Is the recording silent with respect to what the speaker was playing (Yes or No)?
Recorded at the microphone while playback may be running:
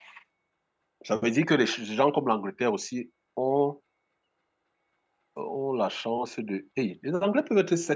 Yes